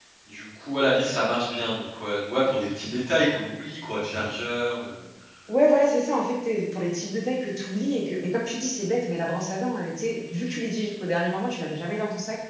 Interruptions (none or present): none